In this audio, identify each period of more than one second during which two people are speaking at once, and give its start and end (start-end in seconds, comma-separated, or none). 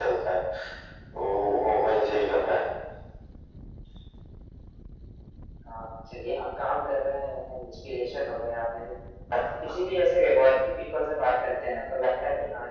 none